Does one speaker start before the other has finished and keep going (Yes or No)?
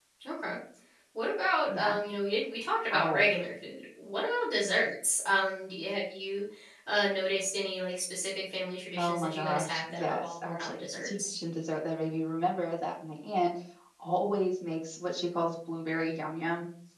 Yes